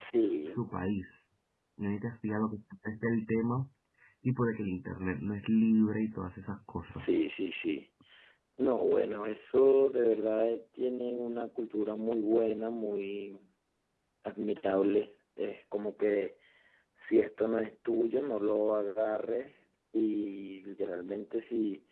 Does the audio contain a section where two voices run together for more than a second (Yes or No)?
No